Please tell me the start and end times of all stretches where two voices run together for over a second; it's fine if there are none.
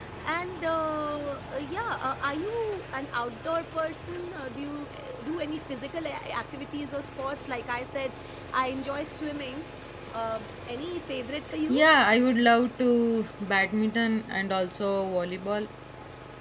none

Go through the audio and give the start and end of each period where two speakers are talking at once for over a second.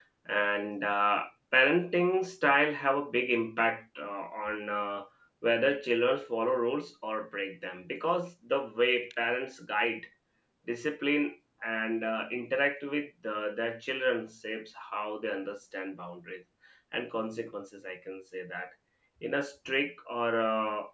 none

